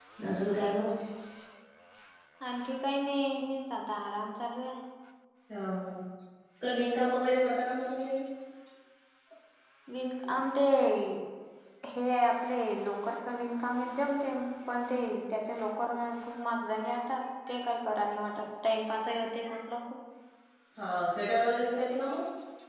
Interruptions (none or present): none